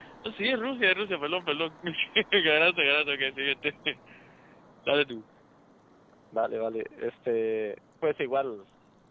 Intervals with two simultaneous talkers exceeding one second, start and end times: none

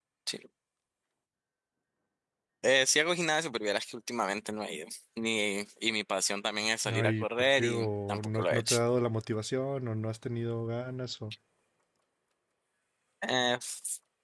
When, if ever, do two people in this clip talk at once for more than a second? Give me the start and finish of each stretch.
6.8-8.8

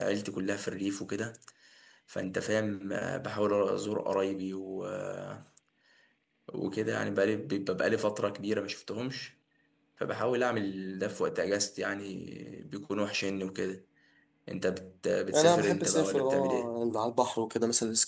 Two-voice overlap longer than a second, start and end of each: 15.3-16.7

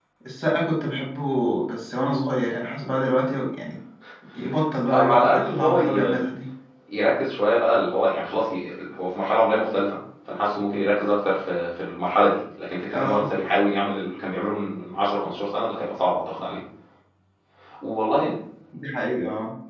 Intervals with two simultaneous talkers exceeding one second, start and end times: 4.9-6.2

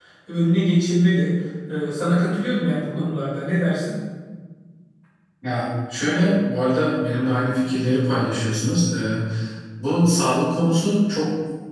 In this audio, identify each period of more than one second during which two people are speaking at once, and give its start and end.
none

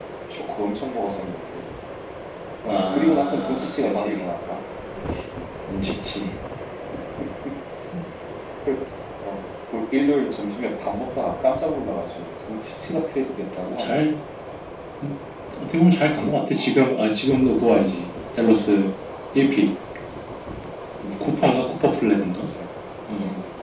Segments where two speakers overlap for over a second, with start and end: 2.7-4.2

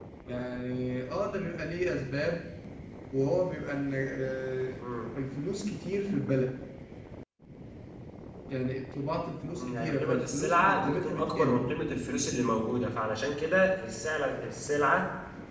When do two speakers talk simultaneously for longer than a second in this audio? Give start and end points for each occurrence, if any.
9.6-11.6

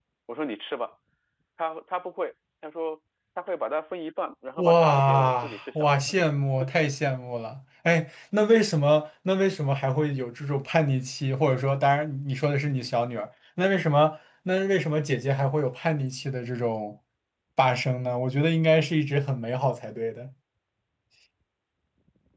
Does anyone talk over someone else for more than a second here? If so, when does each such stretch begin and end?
4.6-6.0

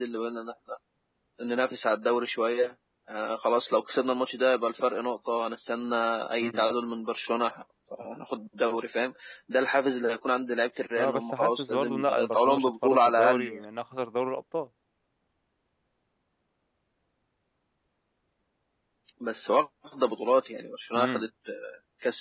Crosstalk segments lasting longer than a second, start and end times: 11.0-13.6

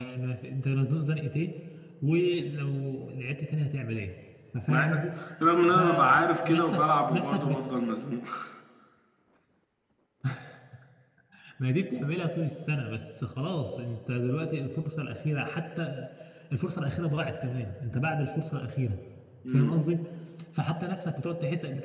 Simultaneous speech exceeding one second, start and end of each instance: 5.7-7.6

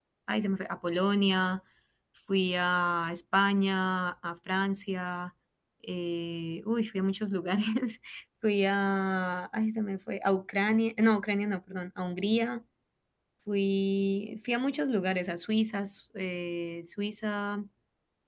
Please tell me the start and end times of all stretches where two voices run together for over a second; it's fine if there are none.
none

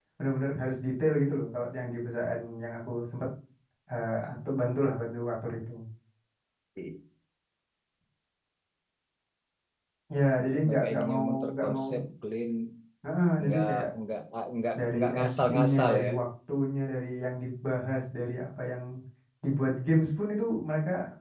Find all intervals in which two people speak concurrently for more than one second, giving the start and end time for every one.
10.7-11.9, 14.8-16.1

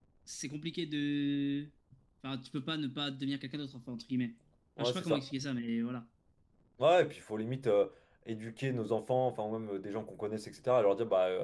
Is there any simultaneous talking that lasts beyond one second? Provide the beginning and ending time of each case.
none

